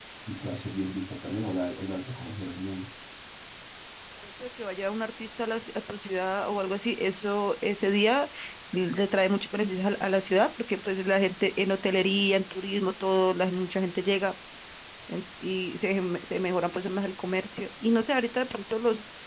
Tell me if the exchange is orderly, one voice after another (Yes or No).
Yes